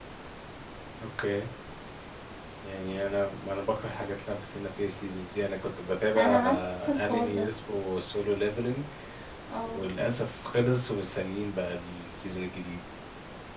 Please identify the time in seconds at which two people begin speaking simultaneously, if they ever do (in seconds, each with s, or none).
6.2 s